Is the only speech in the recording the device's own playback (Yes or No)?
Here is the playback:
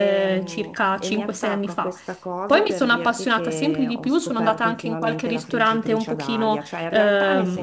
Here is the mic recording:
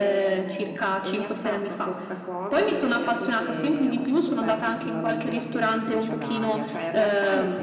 Yes